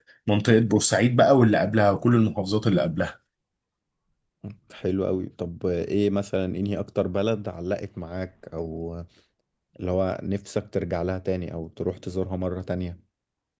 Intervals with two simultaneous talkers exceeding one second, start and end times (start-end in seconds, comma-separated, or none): none